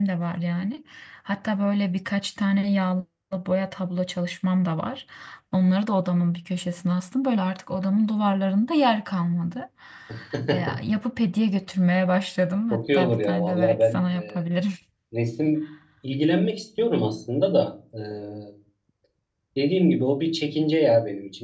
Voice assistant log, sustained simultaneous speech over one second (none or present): present